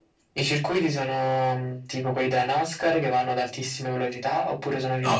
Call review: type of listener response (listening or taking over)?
taking over